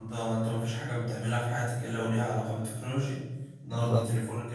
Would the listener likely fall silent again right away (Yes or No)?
Yes